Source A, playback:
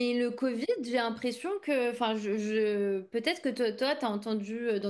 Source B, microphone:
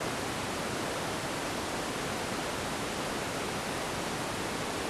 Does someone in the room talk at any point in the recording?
No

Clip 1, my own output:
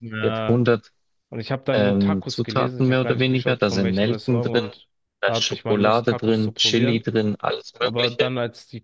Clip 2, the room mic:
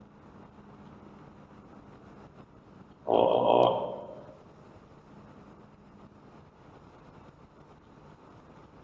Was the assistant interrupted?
Yes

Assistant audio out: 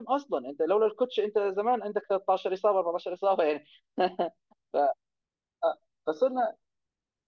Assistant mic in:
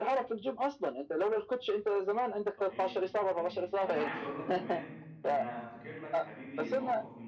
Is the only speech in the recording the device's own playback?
No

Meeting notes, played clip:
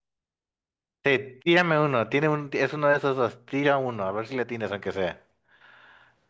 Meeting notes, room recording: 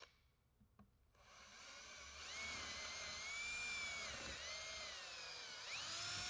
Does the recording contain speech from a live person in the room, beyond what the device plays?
No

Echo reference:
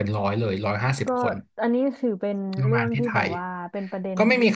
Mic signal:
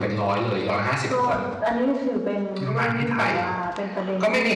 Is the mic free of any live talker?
Yes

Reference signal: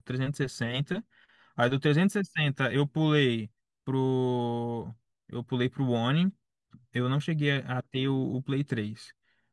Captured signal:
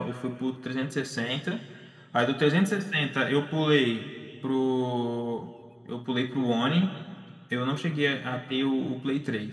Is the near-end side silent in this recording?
Yes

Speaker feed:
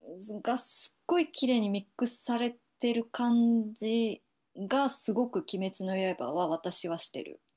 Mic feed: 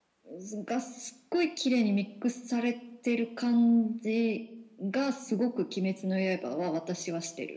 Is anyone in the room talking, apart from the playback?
No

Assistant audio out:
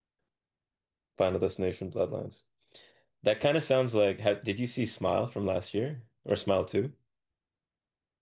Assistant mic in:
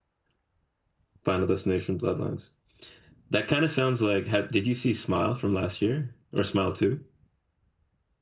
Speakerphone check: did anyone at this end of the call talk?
No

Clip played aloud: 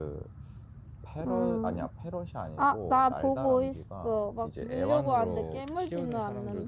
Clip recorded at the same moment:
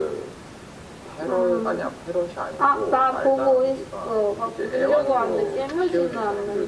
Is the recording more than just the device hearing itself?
No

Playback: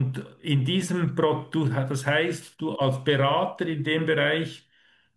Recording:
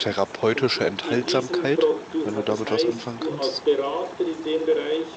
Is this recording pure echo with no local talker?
No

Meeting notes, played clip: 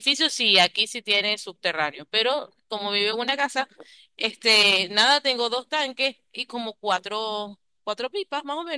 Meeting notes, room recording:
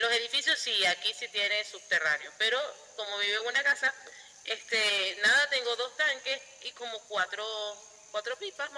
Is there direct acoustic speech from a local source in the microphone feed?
No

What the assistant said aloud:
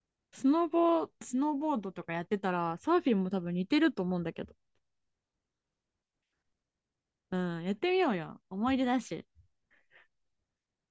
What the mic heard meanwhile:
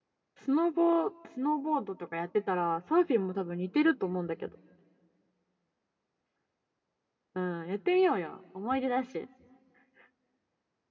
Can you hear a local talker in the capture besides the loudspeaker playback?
No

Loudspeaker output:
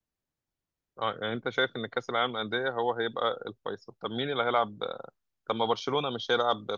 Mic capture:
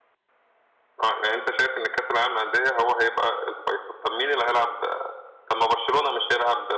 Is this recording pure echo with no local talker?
Yes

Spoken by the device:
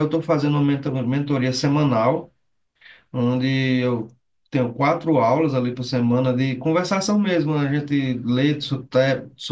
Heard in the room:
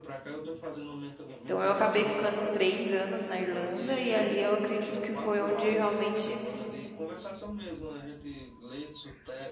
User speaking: Yes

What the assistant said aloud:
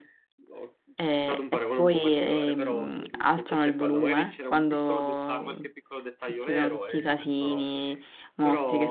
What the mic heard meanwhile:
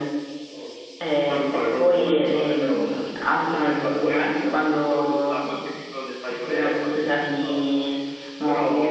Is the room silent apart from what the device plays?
Yes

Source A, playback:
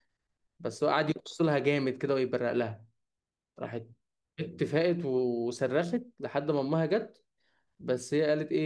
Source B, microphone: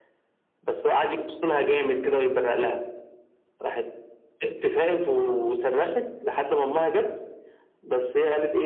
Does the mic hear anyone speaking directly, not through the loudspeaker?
No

